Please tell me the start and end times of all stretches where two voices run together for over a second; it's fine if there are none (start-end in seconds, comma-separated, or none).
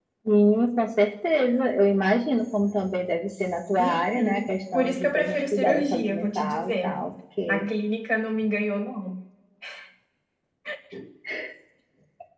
3.8-7.0